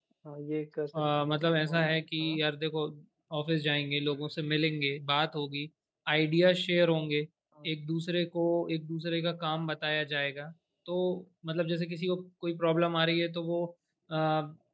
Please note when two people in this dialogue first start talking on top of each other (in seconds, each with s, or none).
0.9 s